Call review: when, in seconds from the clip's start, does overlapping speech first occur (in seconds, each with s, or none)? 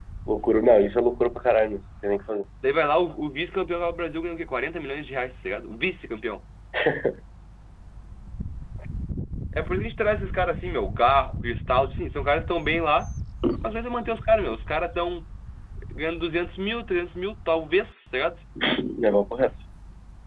none